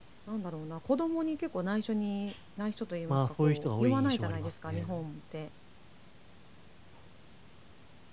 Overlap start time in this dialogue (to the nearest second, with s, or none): 3 s